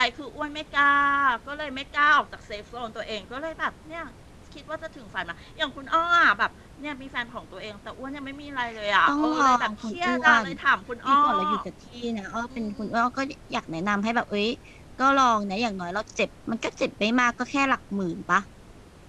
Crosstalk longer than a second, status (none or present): present